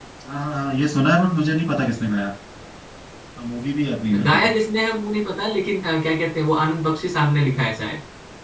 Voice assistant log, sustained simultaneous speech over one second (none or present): none